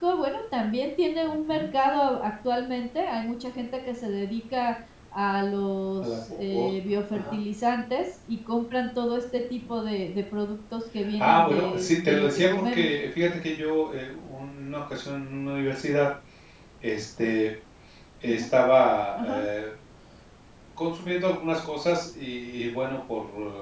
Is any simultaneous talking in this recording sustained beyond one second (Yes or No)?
Yes